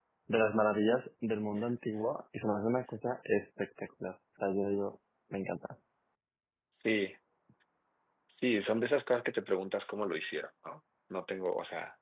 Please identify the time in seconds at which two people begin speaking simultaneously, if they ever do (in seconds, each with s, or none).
none